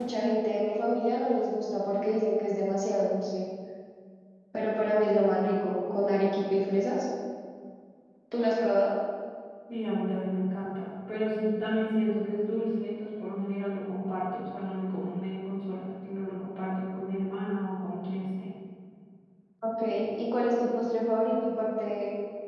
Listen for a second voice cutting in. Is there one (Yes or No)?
No